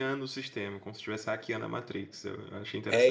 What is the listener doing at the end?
taking over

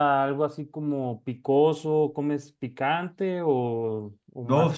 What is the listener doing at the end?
taking over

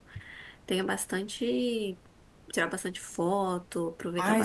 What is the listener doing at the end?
taking over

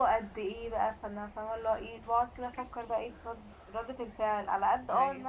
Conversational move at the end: listening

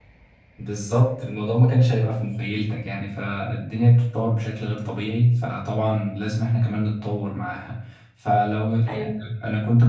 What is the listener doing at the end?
listening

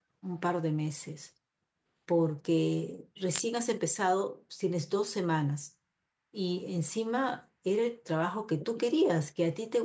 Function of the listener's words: listening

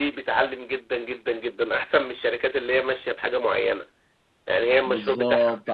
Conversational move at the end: taking over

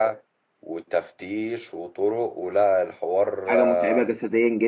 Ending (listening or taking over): taking over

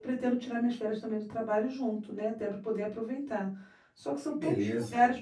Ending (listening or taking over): listening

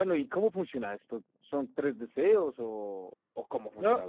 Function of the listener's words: taking over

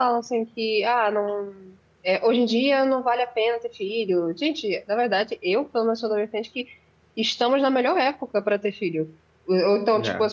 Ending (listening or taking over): listening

